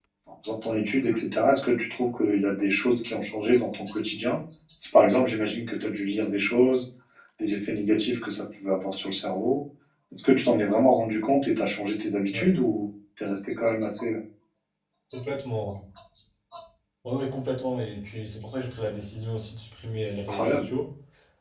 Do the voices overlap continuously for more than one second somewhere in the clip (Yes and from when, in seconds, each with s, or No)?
No